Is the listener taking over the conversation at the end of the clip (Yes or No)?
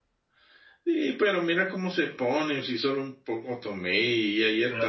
Yes